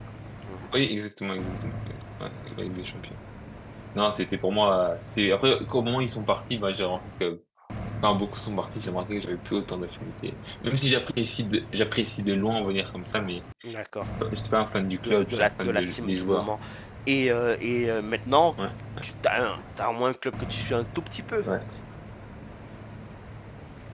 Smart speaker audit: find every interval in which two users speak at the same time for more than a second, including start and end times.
15.0-16.5

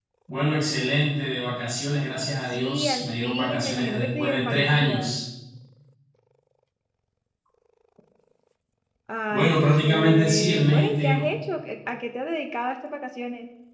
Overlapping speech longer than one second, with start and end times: 2.5-5.2, 9.3-11.2

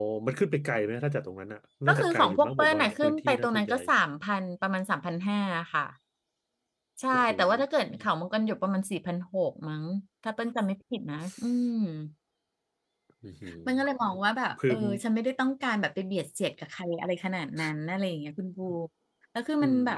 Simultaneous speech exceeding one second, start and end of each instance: 1.9-3.8

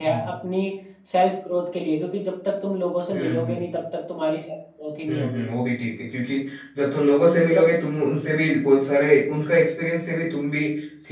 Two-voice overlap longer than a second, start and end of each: none

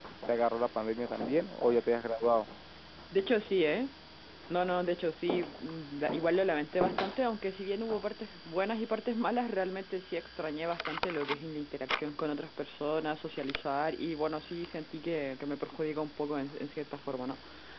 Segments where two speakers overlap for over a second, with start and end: none

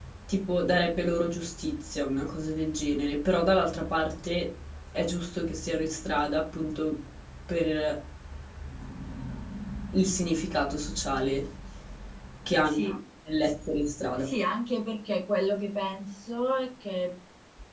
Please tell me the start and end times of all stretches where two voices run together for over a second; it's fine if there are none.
none

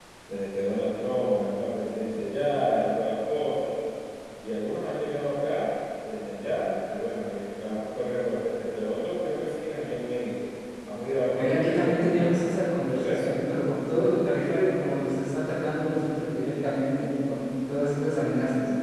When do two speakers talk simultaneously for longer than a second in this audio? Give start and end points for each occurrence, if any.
11.3-13.4

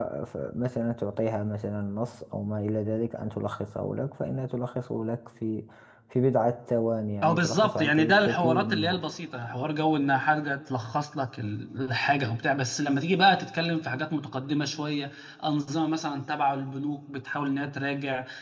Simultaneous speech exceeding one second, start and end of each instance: 7.2-9.0

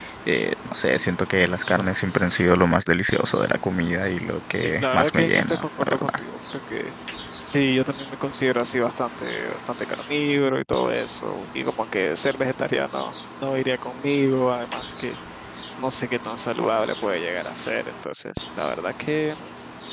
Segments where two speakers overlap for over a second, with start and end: 4.6-6.2

